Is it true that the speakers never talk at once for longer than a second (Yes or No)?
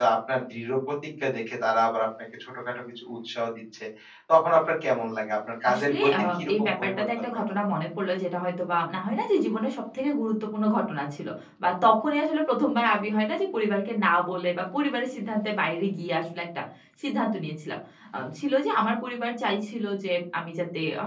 No